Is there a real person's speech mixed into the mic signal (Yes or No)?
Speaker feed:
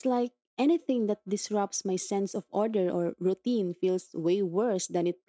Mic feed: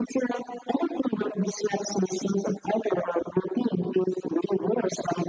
No